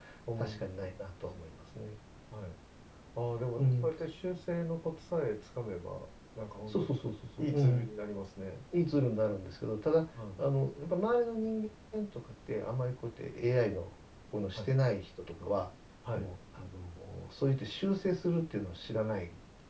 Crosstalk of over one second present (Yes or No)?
No